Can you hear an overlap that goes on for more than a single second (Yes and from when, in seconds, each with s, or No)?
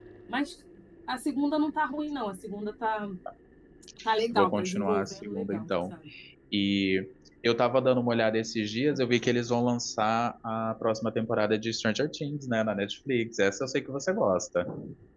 Yes, from 4.3 s